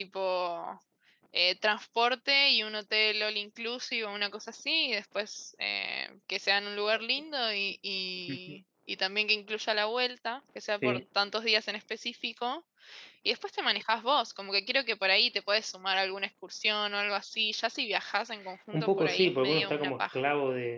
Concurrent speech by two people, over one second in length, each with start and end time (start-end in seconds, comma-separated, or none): 18.7-20.2